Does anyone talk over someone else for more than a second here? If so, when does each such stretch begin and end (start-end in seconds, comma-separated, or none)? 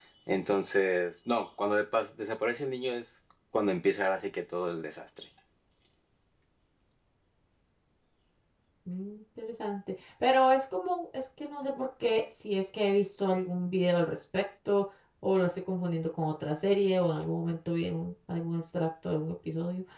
none